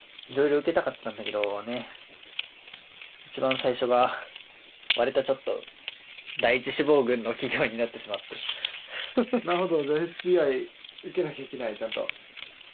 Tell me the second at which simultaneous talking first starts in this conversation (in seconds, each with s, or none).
none